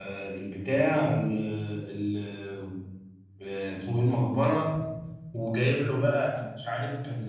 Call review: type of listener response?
listening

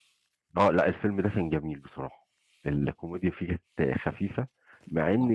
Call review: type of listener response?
listening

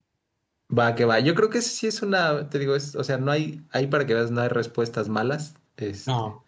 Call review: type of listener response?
listening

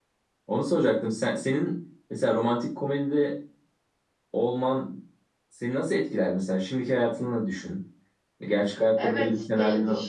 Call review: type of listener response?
taking over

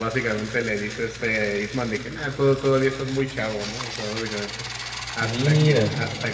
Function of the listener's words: listening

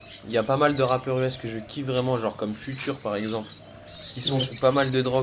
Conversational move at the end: listening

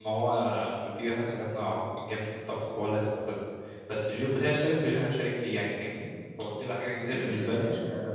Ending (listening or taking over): taking over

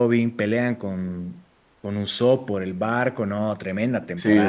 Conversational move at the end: taking over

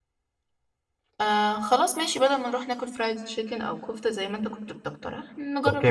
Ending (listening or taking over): taking over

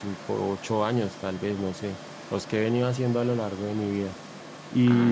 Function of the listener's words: taking over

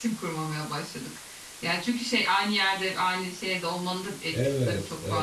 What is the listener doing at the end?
taking over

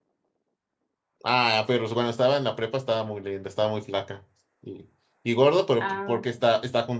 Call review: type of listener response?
listening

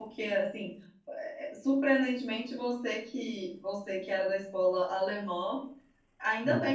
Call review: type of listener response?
listening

